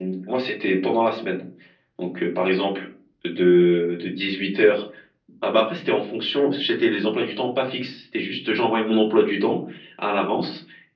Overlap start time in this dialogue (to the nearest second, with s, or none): none